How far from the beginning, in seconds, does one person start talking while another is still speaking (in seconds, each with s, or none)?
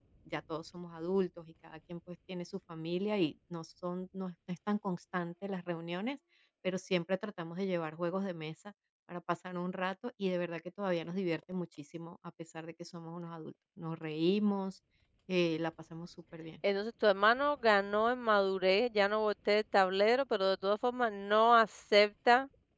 none